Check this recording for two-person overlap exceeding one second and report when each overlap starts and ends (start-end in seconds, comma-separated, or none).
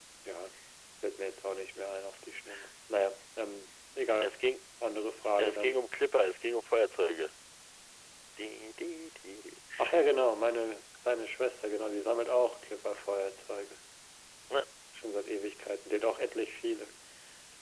none